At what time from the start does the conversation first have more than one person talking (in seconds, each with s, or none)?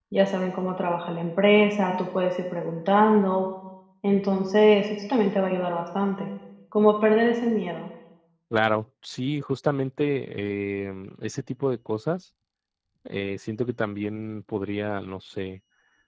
none